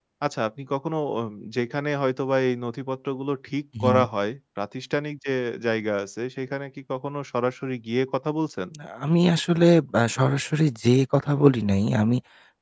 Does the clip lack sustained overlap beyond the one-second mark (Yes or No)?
Yes